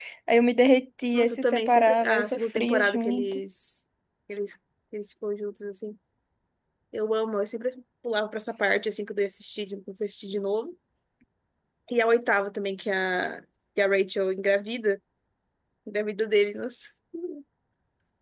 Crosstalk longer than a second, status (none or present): present